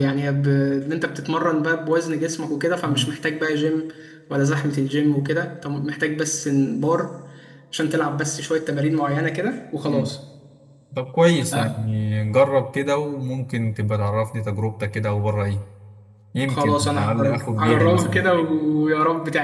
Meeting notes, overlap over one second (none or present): present